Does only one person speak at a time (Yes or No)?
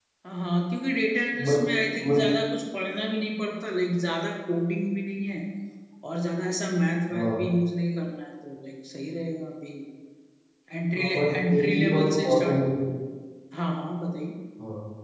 No